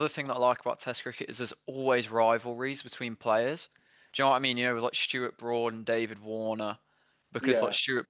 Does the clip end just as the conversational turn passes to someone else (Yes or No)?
No